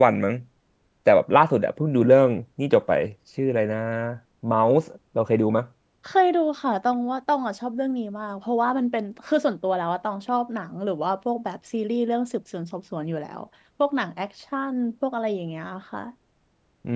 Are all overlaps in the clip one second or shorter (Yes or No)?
Yes